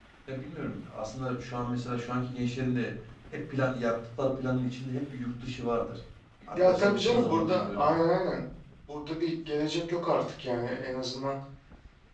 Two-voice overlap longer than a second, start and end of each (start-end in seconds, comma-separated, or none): 6.5-7.9